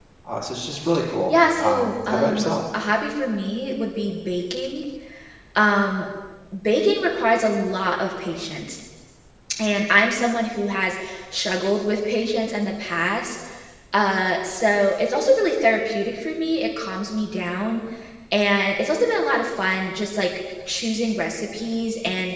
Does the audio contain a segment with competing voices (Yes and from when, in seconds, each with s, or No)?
Yes, from 1.3 s